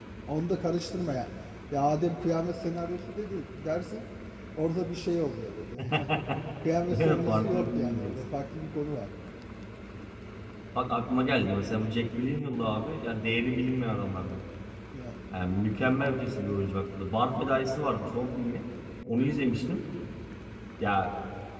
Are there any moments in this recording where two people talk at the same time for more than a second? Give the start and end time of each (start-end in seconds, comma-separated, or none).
6.9-8.2